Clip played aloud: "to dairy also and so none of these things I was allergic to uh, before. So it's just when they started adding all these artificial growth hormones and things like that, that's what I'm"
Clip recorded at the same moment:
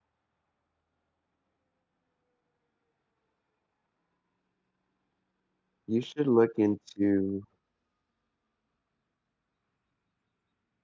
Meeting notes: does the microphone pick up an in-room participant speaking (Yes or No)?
Yes